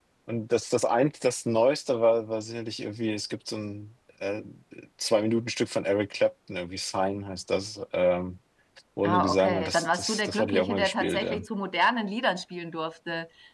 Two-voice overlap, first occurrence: 9.0 s

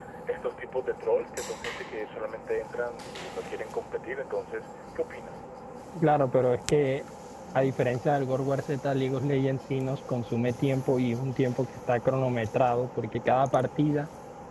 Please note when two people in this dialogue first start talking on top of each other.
none

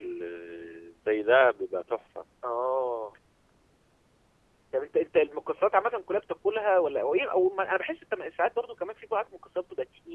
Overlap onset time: none

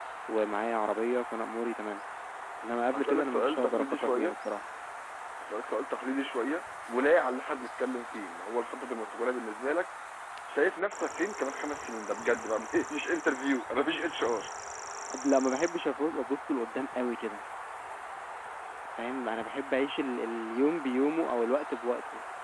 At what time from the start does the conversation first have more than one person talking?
2.9 s

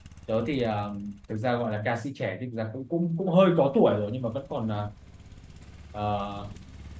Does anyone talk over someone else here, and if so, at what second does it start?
none

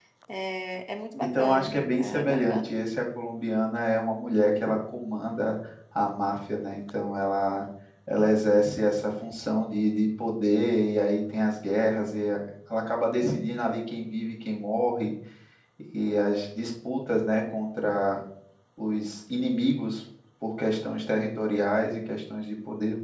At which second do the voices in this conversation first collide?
1.3 s

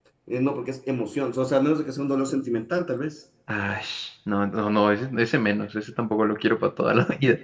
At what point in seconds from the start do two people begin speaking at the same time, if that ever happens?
none

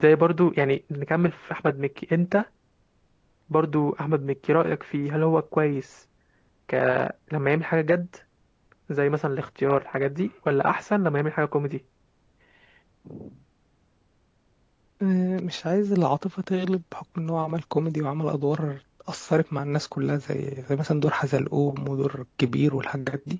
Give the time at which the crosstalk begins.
none

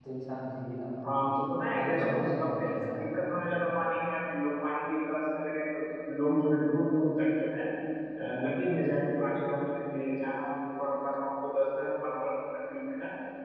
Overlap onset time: 1.8 s

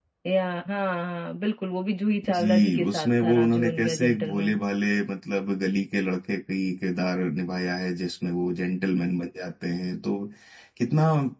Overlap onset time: 2.2 s

